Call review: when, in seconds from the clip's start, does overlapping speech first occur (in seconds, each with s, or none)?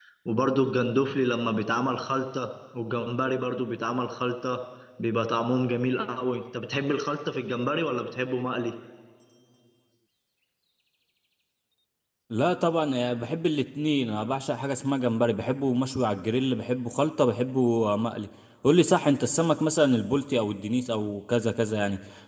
none